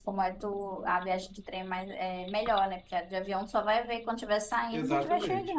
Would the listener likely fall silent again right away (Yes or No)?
No